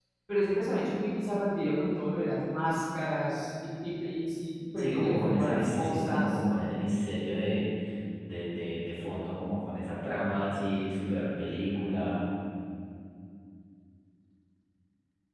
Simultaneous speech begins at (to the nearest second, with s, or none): 5 s